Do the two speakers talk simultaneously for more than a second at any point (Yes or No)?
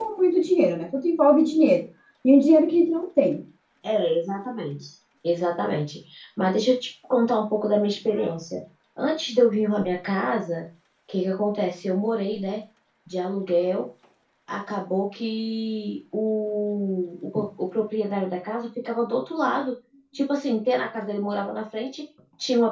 No